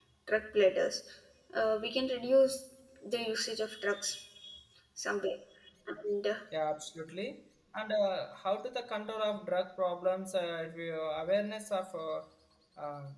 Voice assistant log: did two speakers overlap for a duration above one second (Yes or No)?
No